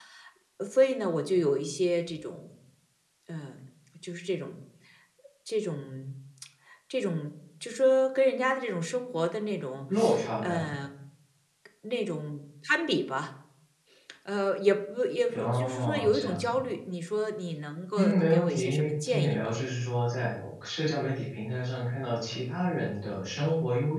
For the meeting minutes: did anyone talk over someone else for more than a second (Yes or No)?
Yes